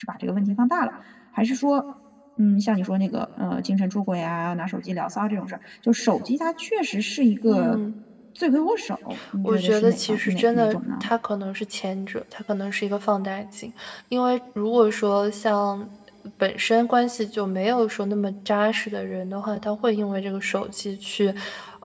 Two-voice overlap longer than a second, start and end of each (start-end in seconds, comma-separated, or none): 9.4-11.0